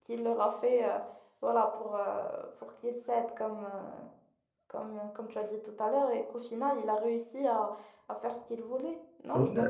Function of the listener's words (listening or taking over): taking over